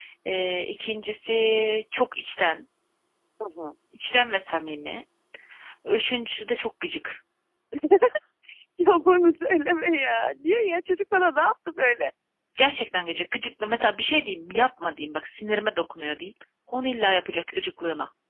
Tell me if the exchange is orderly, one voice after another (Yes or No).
Yes